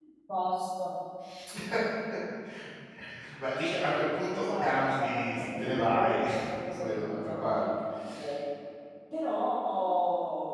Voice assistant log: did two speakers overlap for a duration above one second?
Yes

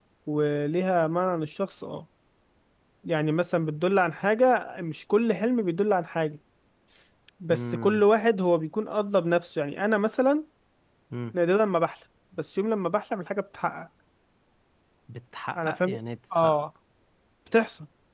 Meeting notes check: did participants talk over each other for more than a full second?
No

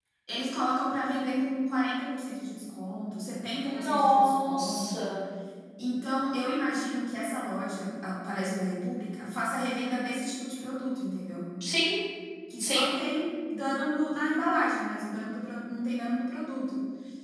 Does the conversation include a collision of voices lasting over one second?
Yes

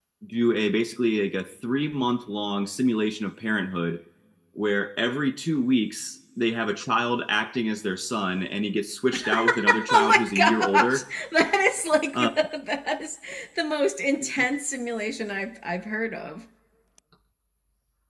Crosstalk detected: Yes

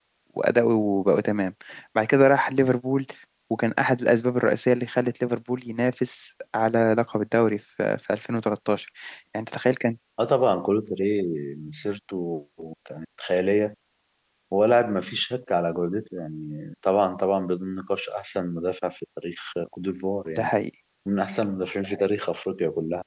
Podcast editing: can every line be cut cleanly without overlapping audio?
Yes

